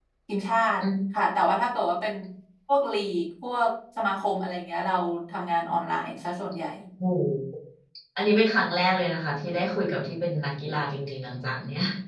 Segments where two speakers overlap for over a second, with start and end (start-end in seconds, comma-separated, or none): none